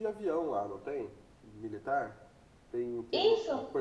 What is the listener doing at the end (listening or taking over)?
taking over